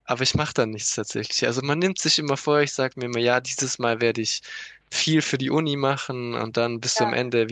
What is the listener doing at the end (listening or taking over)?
listening